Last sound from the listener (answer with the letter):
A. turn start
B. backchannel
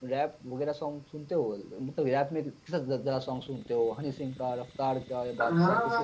A